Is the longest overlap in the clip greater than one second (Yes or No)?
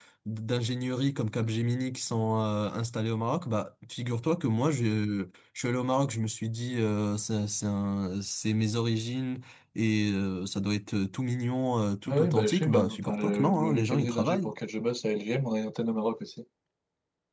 Yes